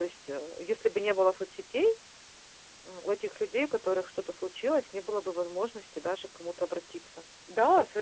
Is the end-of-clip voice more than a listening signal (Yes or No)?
Yes